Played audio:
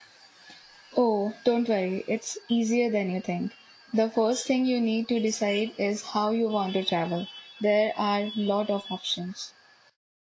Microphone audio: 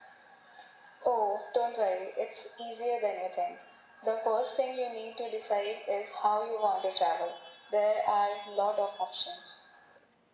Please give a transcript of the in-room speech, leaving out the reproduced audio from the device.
none

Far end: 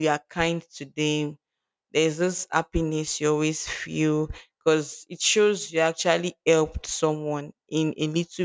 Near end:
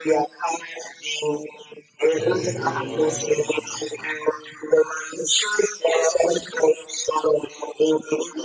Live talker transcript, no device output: Uh, people should.

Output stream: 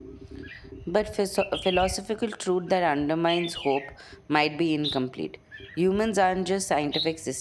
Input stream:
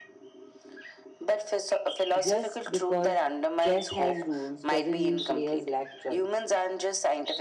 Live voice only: Just because chess has rules doesn't mean players lack choice.

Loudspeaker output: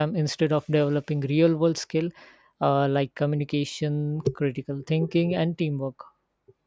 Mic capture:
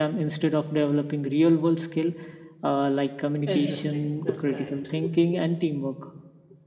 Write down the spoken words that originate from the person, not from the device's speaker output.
Interesting. That's correct.

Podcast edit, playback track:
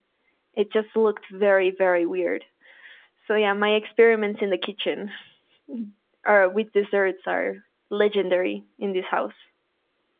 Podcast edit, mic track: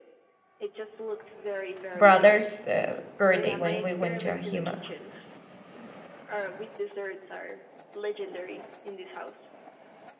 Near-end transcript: brother's uh, birthday when we went to Ahuma.

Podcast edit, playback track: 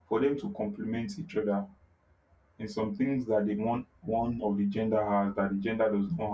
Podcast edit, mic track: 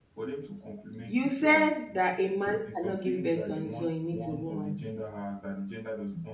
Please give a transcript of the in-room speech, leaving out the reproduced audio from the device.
You said that a man cannot give birth on his own, he needs a woman.

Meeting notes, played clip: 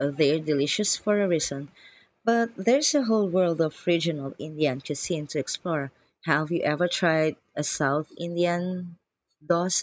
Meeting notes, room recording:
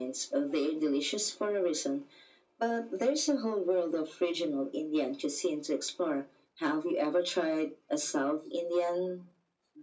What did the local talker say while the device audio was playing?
none

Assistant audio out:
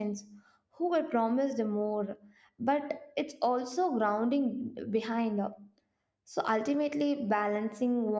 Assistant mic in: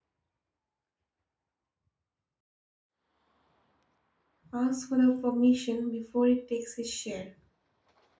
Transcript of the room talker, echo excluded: ask for the permission before it takes its share.

